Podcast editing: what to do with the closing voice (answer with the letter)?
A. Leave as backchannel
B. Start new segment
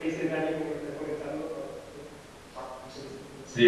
B